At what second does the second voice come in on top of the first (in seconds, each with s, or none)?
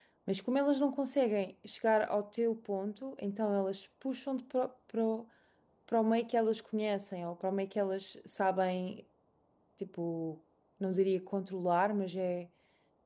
none